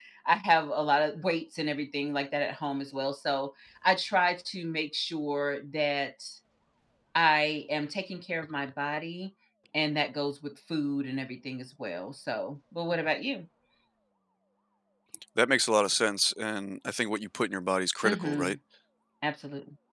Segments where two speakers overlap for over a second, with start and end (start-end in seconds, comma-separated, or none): none